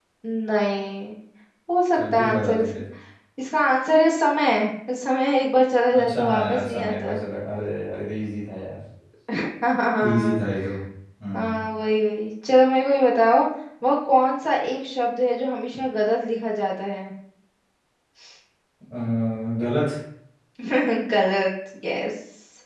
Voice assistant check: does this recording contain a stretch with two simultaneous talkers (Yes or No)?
Yes